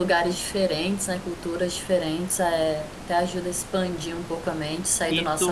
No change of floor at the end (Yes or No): No